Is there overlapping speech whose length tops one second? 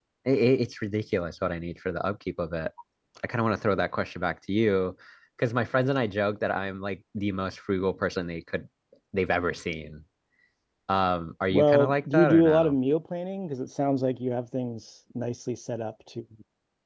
Yes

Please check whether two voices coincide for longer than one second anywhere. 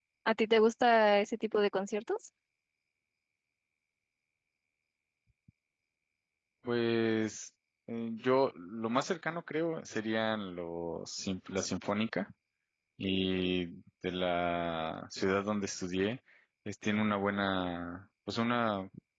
No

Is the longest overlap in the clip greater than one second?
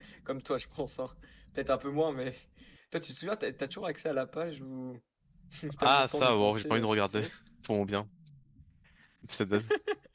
Yes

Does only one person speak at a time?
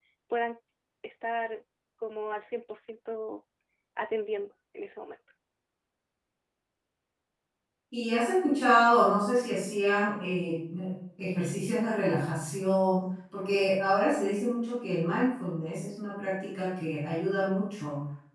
Yes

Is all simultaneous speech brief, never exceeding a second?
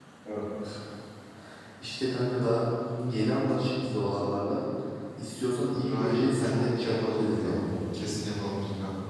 No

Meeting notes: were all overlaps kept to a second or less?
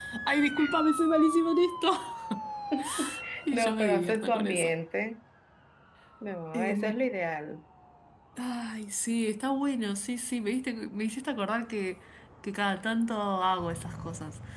No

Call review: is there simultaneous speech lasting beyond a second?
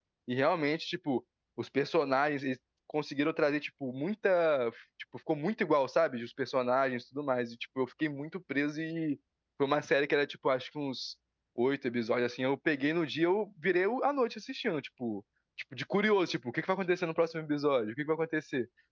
No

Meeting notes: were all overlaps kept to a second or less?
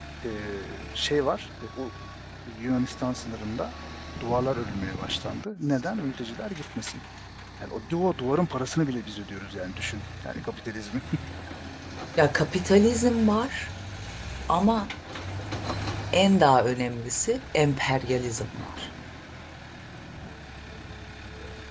Yes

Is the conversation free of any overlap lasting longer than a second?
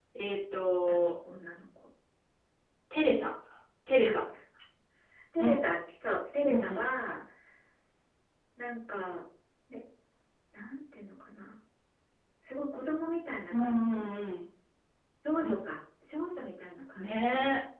Yes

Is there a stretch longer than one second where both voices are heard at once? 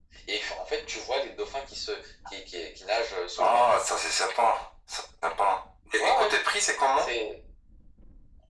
No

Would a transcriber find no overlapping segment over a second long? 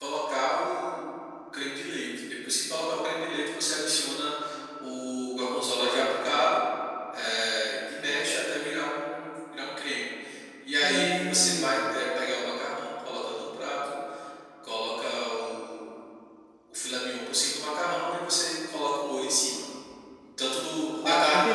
No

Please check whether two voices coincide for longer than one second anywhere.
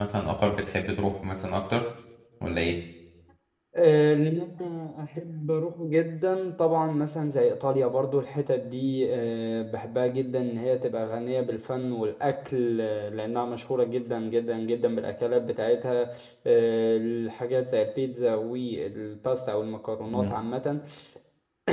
No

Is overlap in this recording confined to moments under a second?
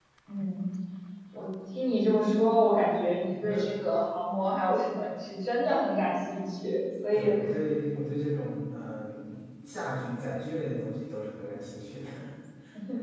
Yes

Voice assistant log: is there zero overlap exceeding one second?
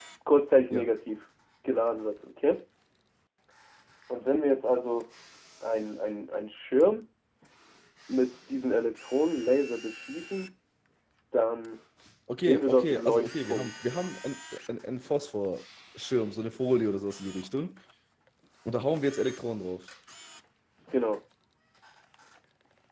No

